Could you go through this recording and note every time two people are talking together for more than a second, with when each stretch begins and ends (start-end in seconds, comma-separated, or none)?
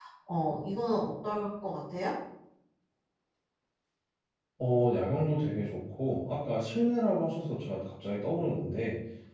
none